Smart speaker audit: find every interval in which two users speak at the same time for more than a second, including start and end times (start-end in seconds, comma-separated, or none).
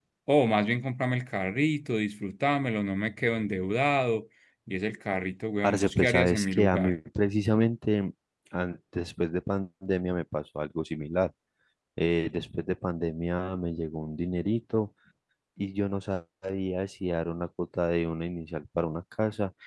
5.6-7.0